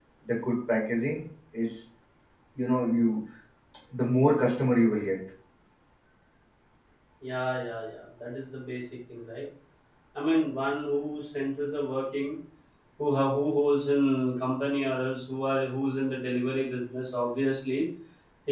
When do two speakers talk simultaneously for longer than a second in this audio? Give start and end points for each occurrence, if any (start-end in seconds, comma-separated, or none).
none